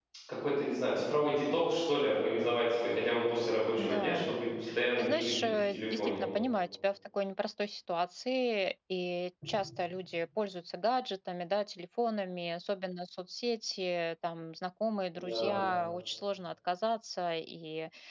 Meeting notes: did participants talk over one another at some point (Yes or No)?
Yes